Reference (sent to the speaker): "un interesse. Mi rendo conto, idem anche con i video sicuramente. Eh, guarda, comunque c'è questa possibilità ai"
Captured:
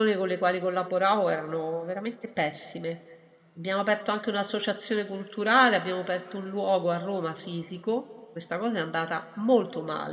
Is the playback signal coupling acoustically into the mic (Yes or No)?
No